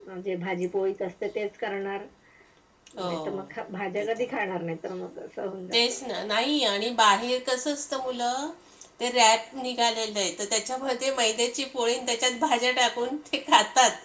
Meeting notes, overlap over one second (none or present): none